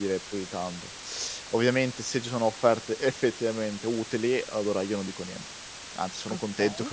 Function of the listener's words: listening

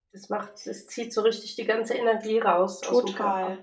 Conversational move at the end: taking over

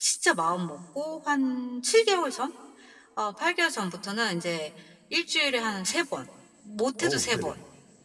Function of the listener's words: listening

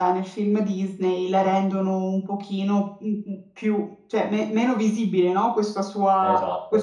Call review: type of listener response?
listening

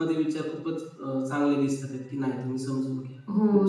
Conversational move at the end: taking over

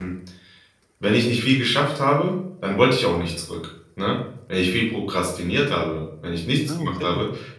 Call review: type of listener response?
listening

